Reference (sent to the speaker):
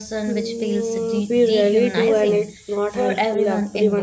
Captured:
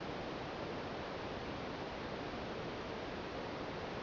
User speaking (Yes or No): No